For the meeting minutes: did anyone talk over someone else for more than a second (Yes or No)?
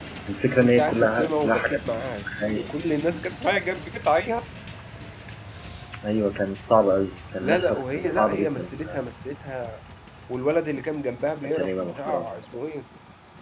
Yes